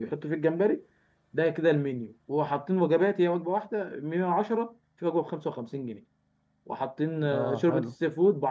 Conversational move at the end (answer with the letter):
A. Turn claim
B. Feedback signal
B